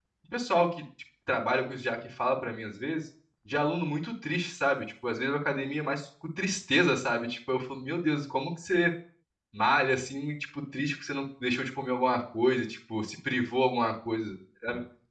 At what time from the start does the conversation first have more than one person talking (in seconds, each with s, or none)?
none